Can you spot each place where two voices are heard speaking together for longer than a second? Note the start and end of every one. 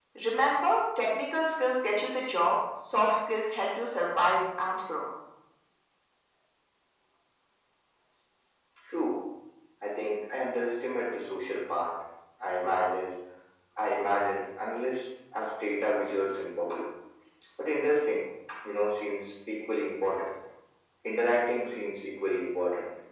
none

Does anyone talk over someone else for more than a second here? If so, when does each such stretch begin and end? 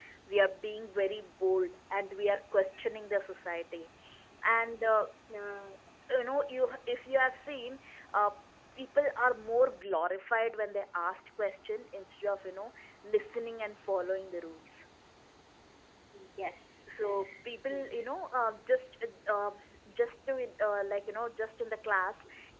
none

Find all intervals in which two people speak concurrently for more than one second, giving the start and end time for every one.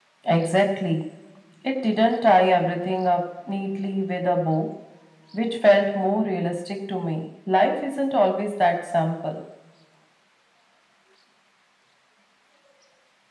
none

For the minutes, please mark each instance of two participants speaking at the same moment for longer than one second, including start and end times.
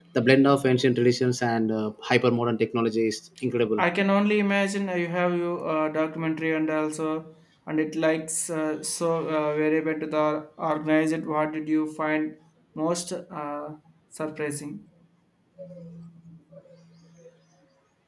none

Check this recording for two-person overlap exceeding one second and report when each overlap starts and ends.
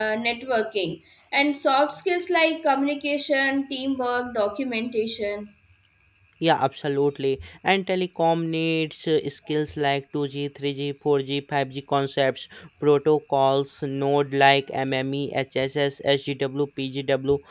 none

